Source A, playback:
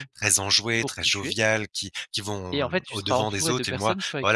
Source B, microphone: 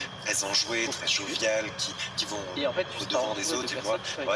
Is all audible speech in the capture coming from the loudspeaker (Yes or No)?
Yes